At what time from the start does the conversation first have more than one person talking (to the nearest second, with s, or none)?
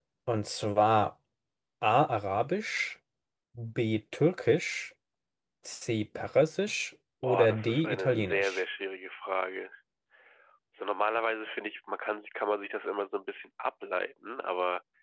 7 s